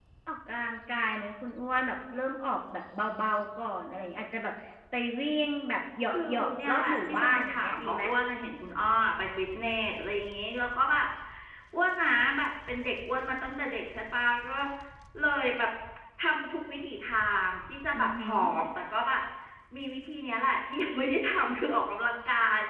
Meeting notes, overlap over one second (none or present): present